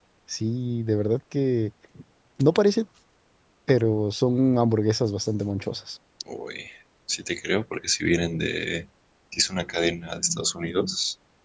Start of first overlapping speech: none

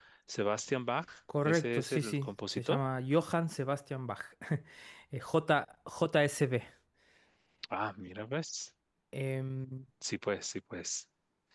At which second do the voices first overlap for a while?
1.3 s

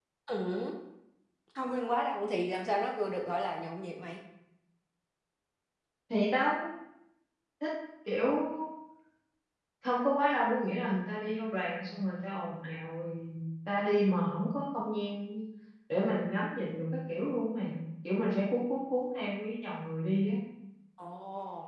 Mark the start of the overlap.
none

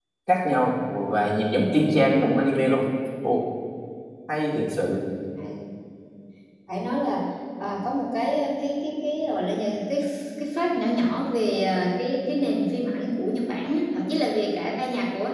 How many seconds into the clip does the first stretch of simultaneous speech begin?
none

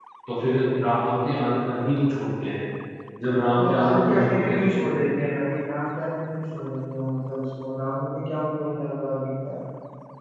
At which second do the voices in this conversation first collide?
3.6 s

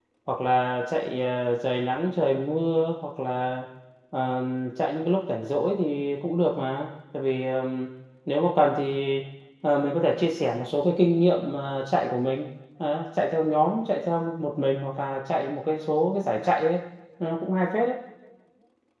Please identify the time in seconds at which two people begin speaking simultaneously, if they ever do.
none

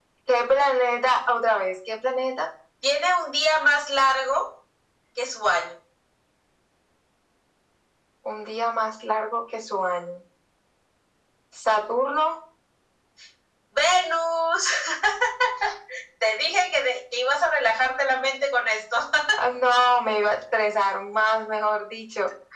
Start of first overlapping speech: none

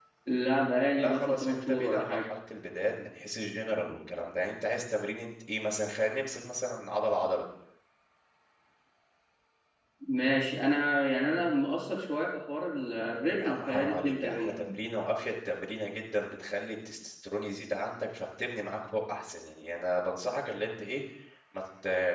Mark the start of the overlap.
1.0 s

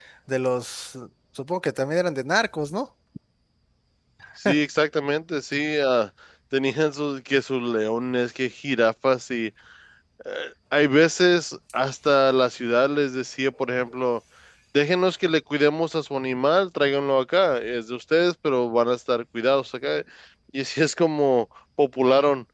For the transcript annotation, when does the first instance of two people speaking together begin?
none

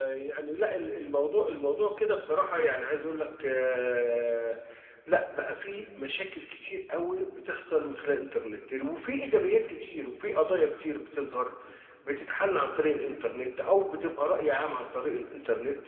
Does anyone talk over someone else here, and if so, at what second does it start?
none

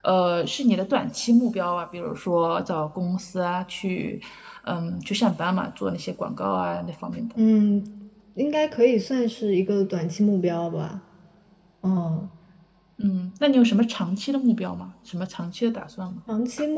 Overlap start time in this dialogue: none

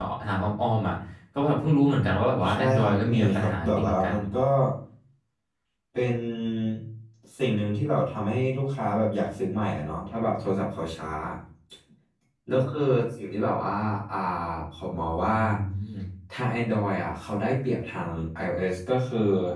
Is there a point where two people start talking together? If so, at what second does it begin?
2.5 s

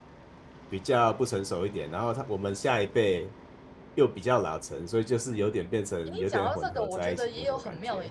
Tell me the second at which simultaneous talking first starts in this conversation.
6.1 s

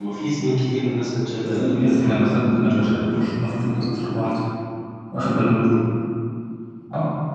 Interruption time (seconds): 1.4 s

